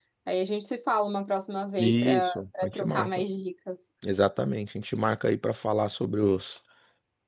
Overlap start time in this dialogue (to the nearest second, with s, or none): 2 s